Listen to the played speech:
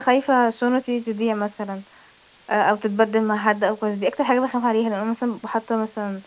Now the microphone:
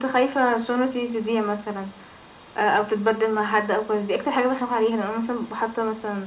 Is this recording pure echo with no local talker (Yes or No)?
Yes